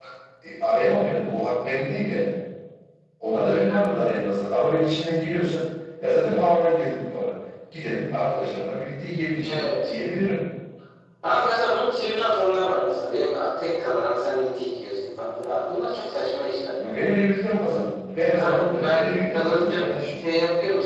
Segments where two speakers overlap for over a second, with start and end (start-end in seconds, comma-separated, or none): 18.3-19.9